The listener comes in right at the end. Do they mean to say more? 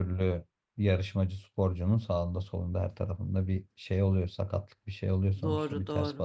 Yes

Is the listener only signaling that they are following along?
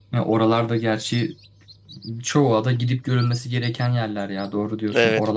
No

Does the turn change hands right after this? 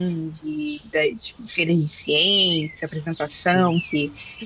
No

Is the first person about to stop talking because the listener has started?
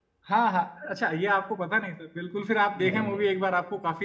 No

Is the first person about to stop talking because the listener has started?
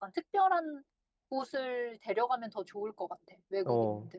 Yes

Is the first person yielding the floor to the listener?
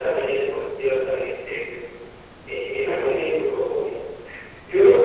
No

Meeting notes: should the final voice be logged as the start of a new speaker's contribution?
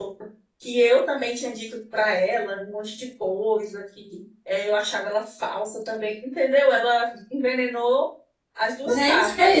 Yes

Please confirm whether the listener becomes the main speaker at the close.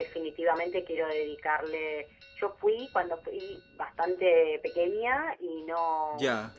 No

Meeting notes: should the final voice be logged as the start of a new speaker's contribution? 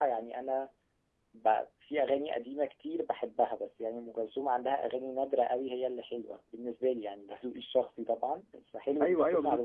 Yes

